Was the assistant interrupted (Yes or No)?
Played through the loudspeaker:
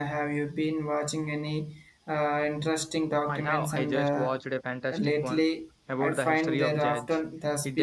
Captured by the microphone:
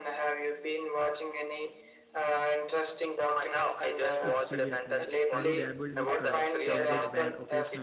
Yes